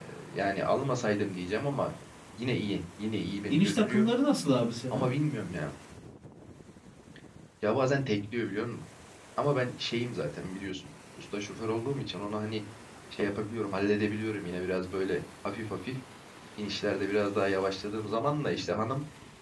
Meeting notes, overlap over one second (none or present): none